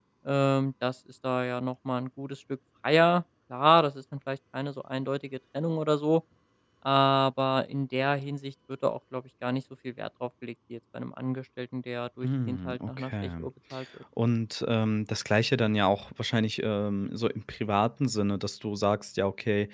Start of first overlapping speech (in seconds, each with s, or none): 12.2 s